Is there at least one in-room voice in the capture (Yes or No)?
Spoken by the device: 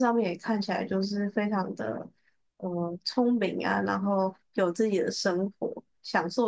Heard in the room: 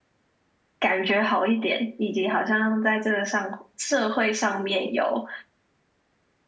Yes